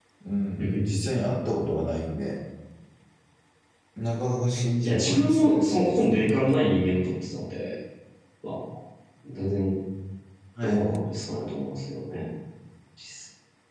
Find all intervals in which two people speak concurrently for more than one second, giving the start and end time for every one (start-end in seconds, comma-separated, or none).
4.8-6.3